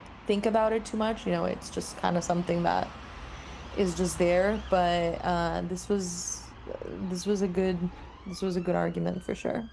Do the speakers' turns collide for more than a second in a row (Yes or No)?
No